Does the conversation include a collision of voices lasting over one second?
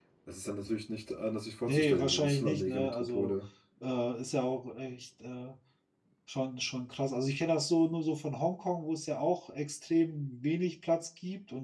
Yes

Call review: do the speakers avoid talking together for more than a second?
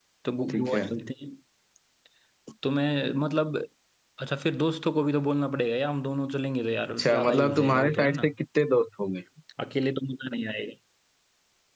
No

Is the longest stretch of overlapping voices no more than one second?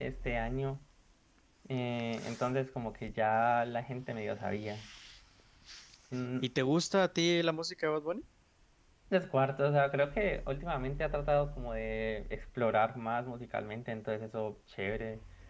Yes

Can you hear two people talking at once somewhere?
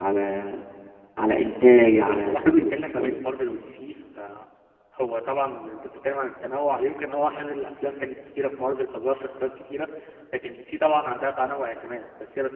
Yes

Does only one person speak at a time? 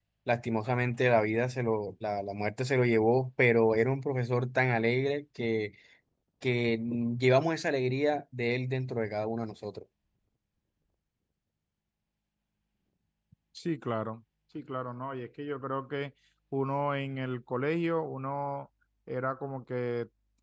Yes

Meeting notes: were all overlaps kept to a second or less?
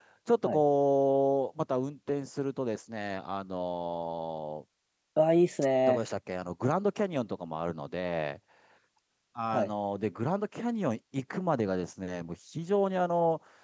Yes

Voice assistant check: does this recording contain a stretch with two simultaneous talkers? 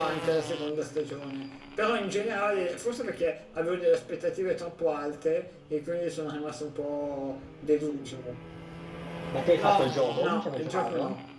Yes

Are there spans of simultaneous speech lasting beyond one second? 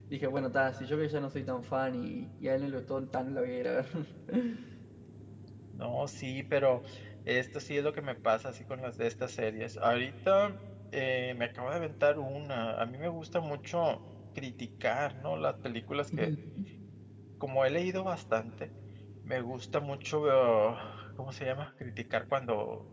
No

